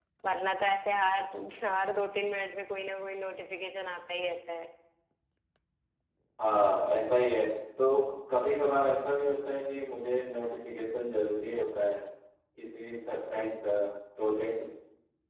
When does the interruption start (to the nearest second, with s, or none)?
none